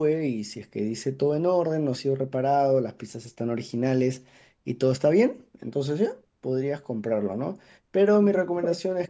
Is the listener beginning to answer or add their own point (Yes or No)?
No